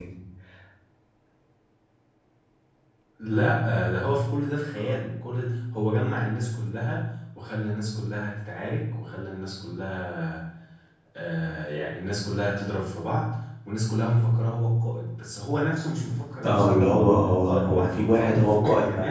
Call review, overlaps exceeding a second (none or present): present